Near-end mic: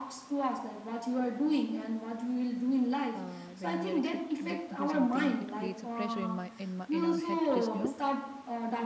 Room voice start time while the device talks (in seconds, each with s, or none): 3.1 s